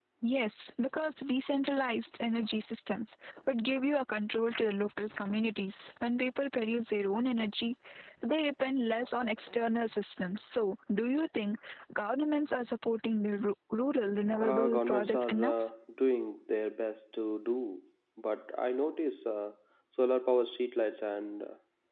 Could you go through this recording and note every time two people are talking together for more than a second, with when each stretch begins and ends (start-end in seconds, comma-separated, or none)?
14.4-15.7